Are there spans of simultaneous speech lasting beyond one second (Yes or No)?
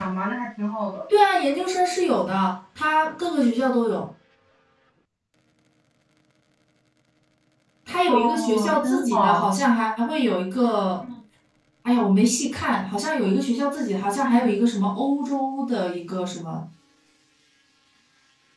Yes